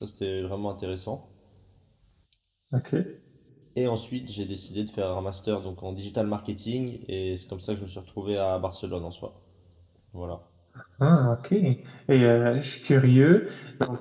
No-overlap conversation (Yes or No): Yes